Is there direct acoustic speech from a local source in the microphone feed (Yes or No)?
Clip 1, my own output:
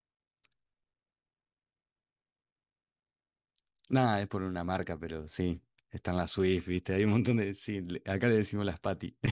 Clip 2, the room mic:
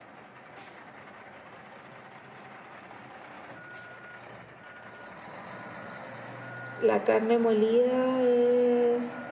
Yes